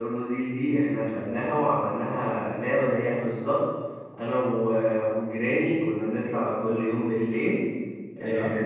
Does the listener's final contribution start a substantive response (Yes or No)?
No